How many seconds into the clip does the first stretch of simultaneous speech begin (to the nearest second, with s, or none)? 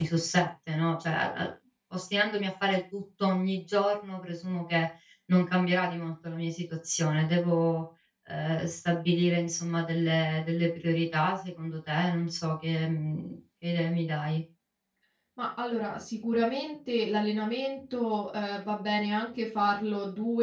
none